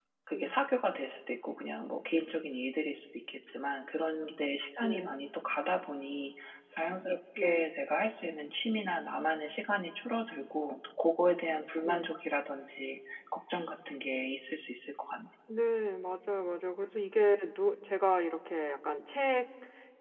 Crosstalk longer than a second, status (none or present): none